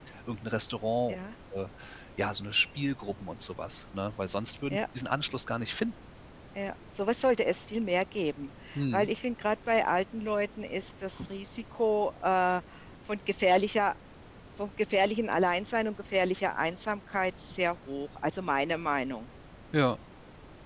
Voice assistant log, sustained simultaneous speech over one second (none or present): none